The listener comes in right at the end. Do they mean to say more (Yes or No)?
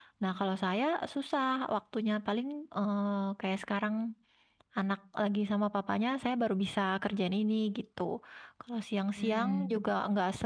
No